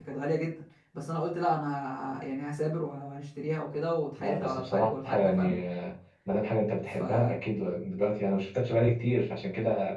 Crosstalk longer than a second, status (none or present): present